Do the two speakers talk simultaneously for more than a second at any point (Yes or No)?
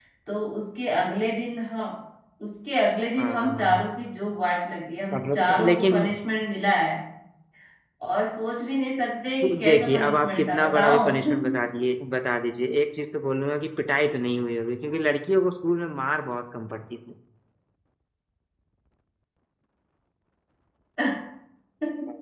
Yes